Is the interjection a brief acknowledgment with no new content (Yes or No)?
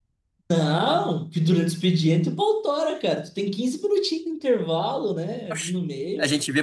No